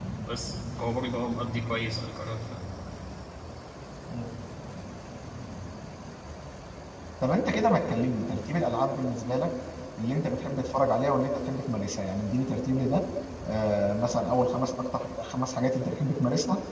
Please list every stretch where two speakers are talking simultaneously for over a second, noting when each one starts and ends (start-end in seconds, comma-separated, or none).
none